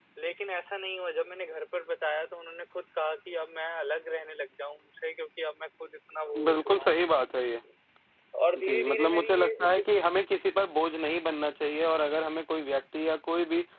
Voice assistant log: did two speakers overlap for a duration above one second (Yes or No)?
Yes